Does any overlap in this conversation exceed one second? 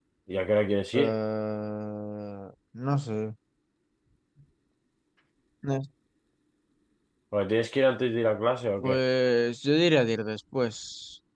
No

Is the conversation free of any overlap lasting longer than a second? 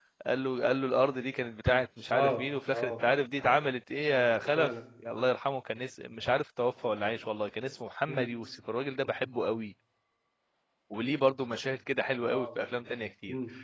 Yes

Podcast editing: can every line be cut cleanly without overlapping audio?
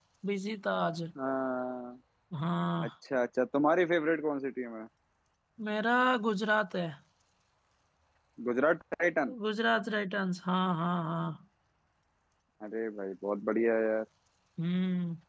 Yes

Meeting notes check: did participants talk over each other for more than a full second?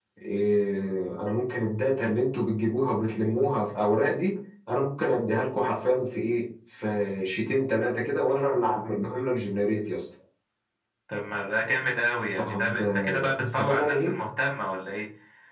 Yes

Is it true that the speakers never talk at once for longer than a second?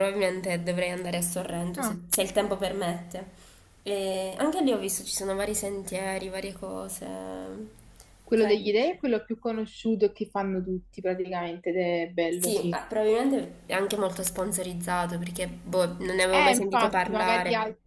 No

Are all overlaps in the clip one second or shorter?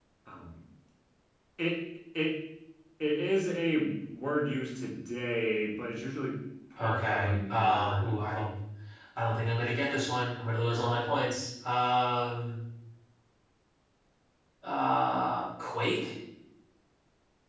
No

